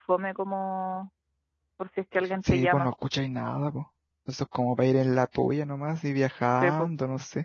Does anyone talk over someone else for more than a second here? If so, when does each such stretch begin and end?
none

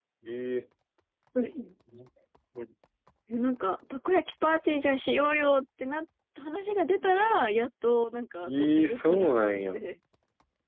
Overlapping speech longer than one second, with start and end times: 8.5-9.8

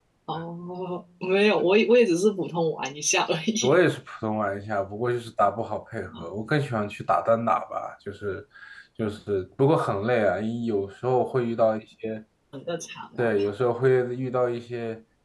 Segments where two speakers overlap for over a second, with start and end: none

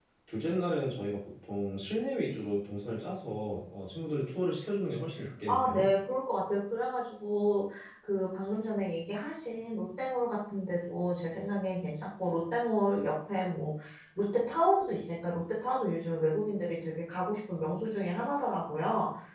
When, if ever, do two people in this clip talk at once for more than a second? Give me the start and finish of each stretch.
none

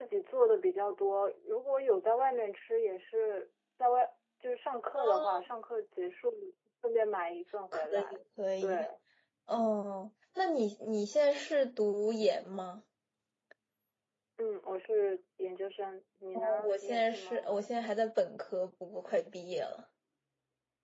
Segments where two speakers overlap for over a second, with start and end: 16.3-17.6

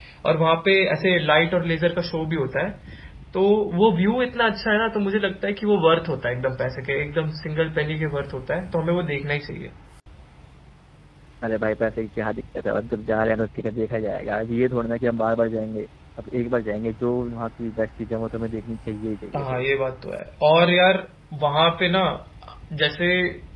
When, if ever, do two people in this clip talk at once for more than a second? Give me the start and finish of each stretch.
none

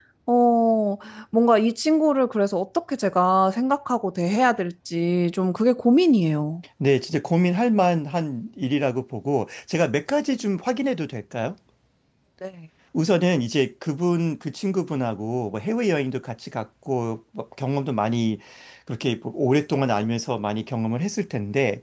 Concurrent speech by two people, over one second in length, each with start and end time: none

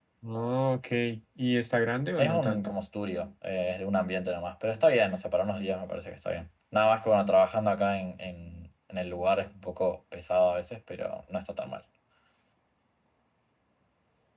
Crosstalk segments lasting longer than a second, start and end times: none

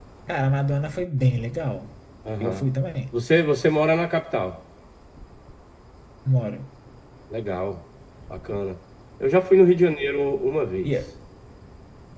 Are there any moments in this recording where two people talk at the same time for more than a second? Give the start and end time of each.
none

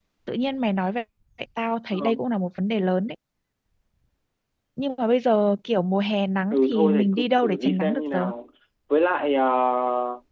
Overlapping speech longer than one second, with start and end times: 6.5-8.3

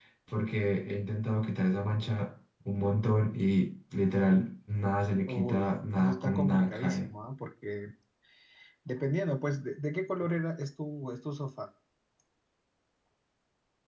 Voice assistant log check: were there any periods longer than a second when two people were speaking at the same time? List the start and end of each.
5.3-7.1

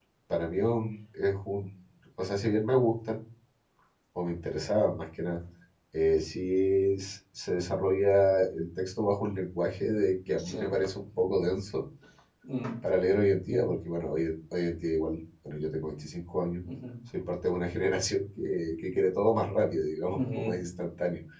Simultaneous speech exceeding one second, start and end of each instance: none

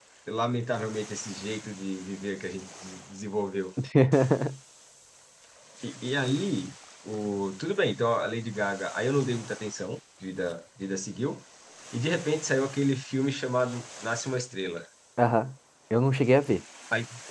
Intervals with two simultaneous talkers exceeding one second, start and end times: none

